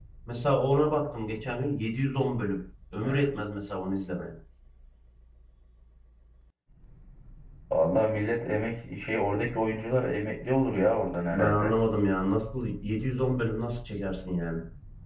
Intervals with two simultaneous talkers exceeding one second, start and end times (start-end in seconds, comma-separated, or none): none